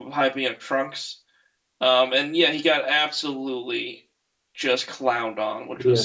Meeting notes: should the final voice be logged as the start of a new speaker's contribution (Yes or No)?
Yes